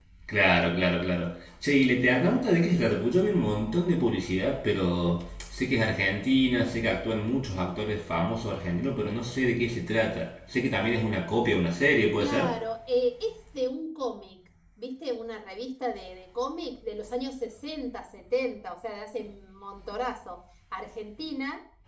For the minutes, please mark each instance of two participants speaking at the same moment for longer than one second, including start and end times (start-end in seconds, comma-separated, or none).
none